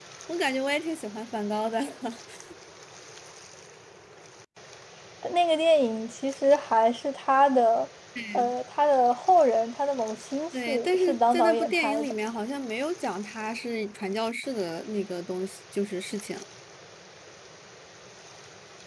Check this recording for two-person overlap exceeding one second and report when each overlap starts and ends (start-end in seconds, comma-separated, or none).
10.7-12.1